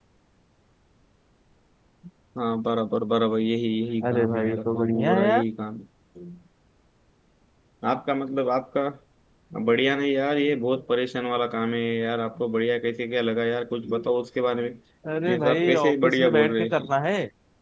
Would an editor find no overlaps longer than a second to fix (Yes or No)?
No